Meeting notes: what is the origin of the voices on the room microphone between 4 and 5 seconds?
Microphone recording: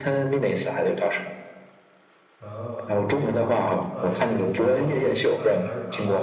both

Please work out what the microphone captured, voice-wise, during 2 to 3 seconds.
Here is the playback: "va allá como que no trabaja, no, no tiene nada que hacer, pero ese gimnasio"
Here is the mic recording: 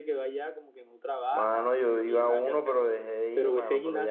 both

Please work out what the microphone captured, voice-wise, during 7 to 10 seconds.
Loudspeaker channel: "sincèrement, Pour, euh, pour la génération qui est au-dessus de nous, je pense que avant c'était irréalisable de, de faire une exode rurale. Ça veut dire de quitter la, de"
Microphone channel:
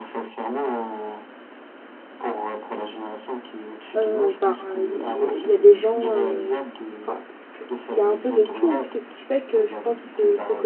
both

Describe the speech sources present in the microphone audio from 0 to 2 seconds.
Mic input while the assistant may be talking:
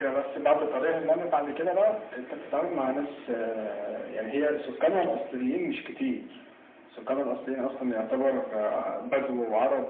echo only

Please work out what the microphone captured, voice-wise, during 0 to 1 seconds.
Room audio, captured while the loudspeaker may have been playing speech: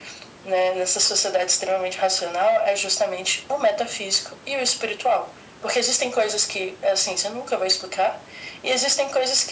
echo only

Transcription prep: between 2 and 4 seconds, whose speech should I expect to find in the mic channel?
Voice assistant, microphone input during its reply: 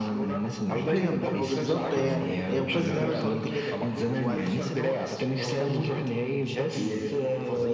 both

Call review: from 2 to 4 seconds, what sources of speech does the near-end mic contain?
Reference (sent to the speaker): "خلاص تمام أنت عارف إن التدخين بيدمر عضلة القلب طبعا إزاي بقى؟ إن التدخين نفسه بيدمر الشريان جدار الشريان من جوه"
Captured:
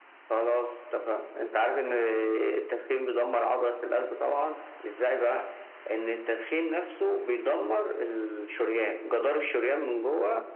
echo only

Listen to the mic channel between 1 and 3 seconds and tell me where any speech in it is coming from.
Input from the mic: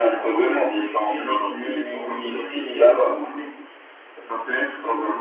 echo only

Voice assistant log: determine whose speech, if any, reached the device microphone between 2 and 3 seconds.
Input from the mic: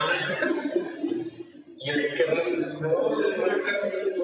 echo only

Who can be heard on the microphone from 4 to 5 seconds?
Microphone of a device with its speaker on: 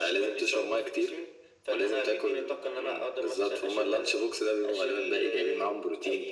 echo only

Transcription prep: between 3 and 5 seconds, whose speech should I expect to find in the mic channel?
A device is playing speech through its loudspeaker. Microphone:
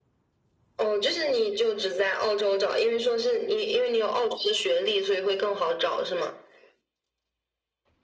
echo only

